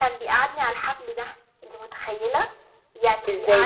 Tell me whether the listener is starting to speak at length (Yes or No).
No